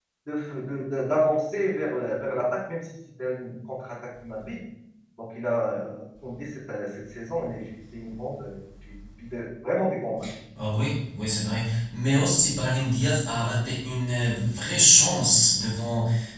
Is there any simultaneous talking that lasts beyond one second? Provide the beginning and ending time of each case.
none

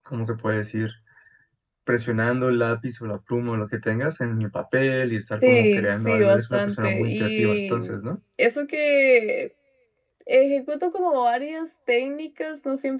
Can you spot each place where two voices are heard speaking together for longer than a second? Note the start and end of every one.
5.4-7.8

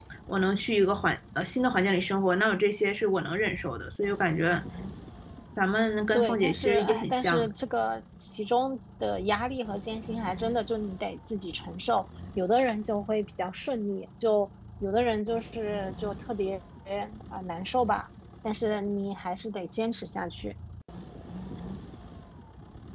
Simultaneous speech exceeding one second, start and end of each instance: 6.1-7.5

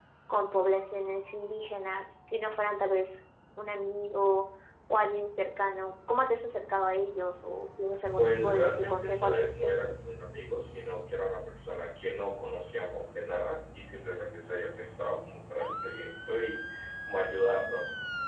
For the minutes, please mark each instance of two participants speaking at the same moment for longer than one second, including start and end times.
8.2-9.7

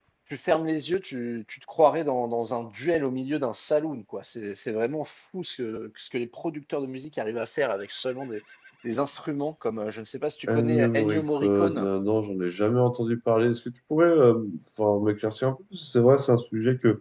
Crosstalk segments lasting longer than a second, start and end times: 10.5-11.9

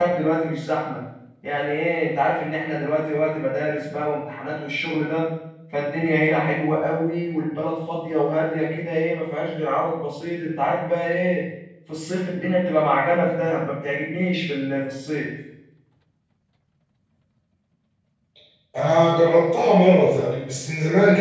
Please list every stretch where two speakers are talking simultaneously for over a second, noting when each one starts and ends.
none

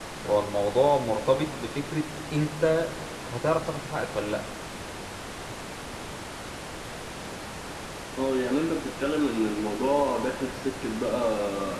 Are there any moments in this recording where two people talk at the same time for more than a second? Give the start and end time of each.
none

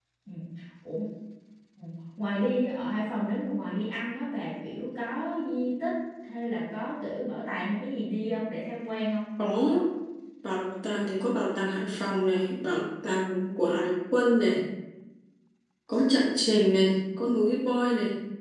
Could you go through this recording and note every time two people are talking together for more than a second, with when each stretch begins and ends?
none

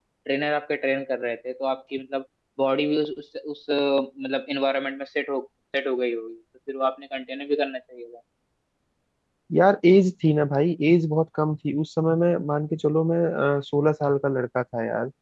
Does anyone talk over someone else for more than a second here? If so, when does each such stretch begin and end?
none

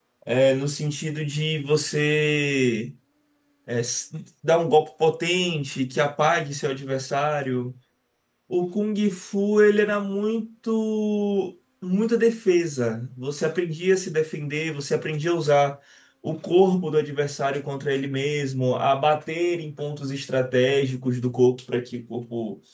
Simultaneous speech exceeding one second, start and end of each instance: none

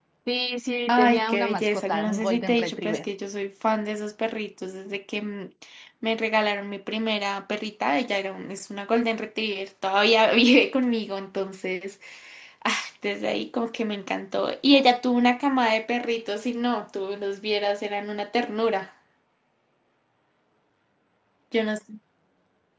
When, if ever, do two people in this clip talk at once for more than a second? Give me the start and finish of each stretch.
0.9-3.0

